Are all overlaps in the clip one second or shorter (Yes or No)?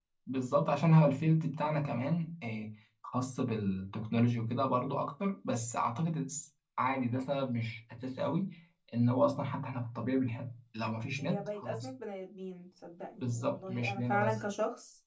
No